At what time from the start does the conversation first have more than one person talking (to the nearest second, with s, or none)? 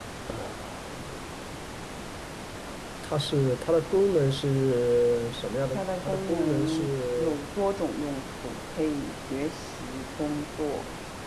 6 s